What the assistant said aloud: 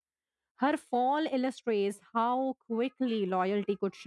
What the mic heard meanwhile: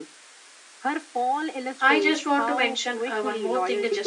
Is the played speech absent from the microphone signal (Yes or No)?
No